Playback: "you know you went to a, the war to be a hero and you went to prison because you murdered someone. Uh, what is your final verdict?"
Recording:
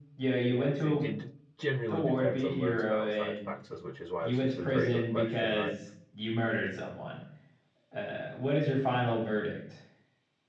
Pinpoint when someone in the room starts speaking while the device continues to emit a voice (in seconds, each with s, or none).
0.4 s